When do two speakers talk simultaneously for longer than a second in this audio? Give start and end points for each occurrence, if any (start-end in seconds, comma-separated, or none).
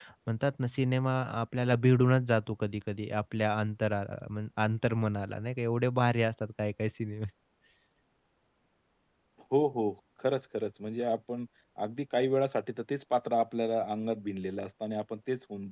none